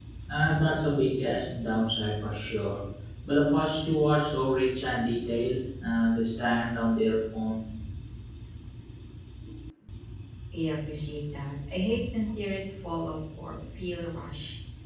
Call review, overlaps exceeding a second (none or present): none